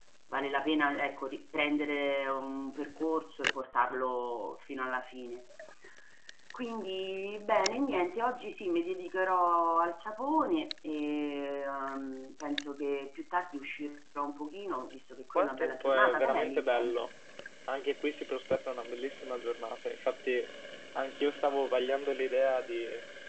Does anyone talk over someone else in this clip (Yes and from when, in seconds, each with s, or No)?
Yes, from 15.3 s